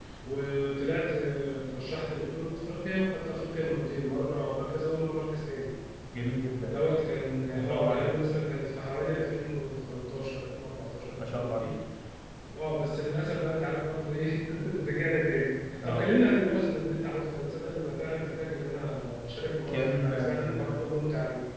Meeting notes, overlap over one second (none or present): present